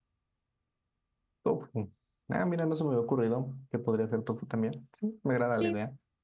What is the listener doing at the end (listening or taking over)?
taking over